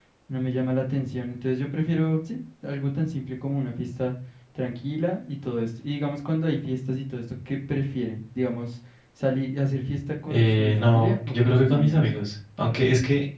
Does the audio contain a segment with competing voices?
Yes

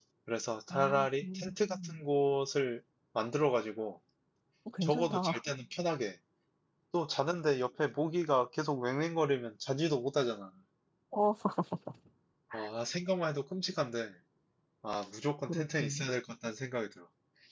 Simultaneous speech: Yes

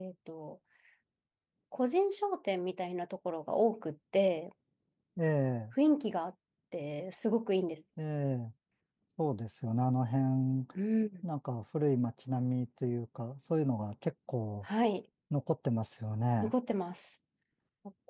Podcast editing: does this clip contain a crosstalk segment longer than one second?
No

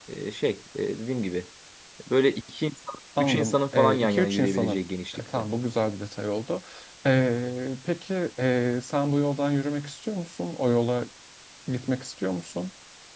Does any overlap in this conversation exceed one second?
Yes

